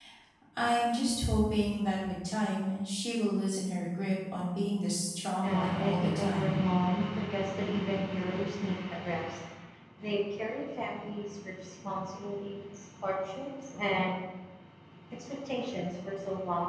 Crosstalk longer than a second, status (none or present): present